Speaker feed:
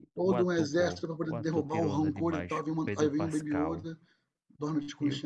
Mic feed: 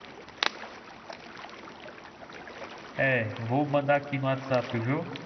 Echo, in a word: none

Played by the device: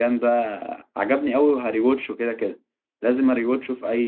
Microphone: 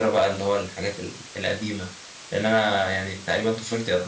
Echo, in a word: none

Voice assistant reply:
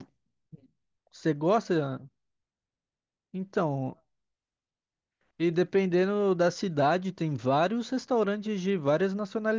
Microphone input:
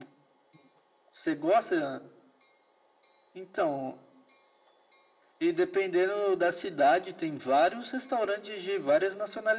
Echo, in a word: present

